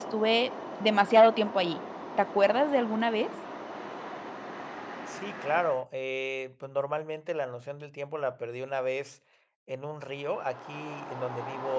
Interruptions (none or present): none